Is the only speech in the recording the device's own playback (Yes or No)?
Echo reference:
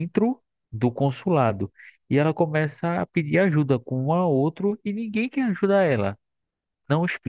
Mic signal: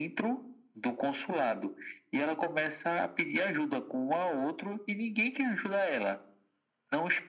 Yes